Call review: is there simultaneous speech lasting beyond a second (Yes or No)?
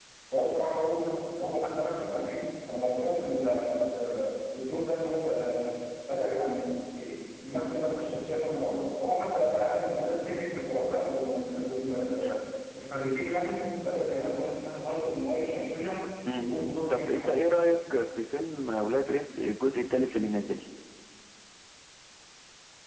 No